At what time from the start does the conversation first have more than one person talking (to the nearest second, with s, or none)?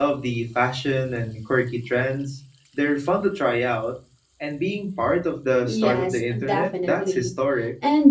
6 s